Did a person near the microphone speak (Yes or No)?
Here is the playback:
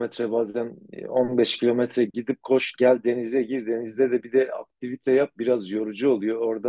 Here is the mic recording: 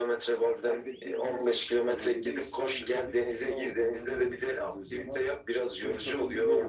Yes